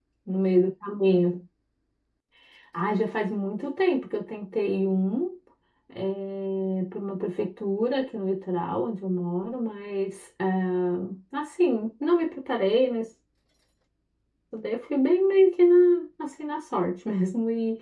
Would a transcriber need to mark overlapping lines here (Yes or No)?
No